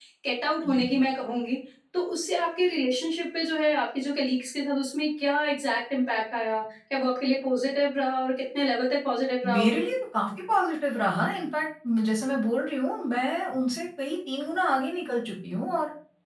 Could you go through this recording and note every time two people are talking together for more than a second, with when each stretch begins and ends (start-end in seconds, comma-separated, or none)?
none